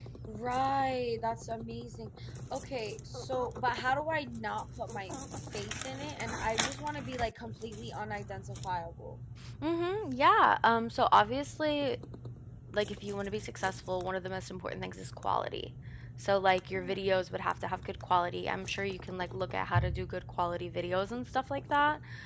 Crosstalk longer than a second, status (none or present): none